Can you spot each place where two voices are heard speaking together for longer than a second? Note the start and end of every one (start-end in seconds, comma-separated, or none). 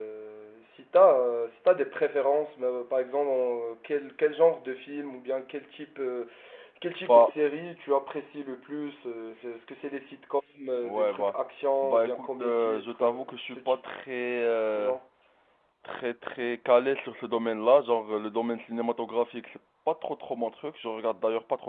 11.8-13.1